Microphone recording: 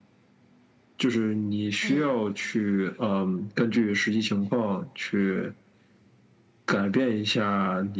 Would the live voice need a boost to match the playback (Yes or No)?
Yes